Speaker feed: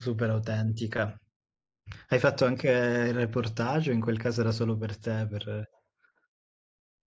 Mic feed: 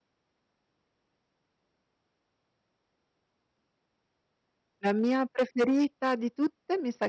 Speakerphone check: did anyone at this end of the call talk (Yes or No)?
Yes